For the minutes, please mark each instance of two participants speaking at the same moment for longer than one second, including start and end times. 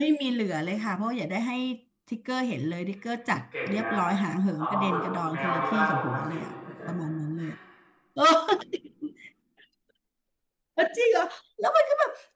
4.6-6.3

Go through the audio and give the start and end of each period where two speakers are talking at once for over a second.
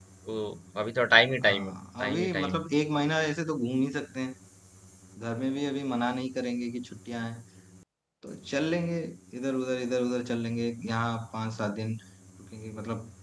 1.4-2.7

